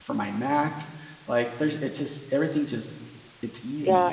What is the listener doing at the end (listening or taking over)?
taking over